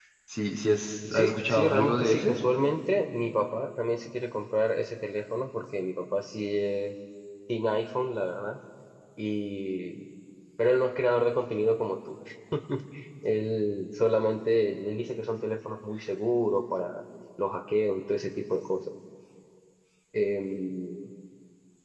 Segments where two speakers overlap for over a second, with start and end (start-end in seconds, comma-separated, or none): 1.1-2.3